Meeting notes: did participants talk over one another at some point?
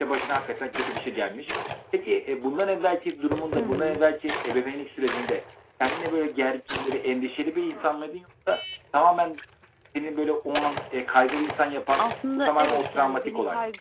Yes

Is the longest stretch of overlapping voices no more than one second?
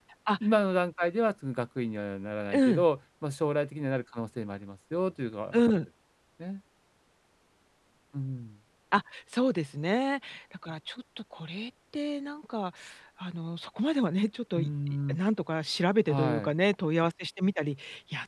Yes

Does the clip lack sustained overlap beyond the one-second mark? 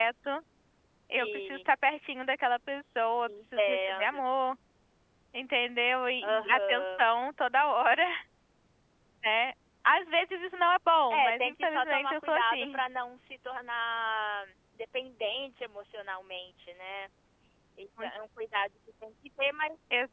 No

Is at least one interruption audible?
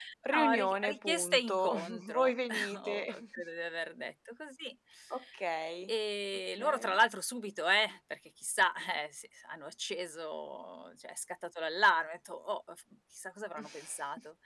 Yes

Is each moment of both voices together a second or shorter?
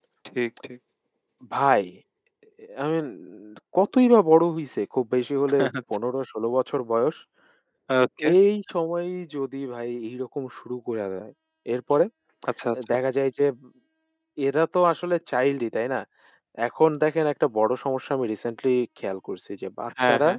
Yes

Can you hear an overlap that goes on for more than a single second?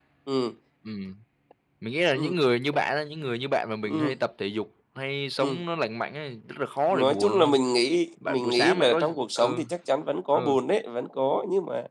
Yes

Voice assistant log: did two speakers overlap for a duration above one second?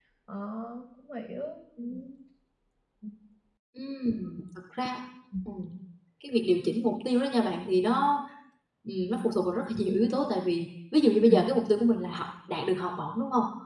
No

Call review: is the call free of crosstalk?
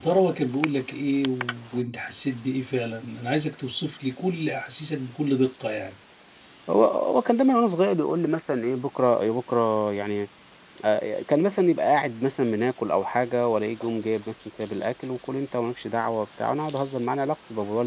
Yes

